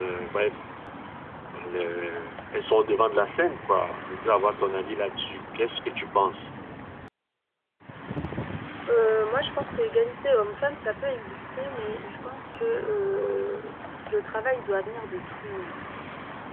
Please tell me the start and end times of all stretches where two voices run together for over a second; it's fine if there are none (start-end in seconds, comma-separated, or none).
none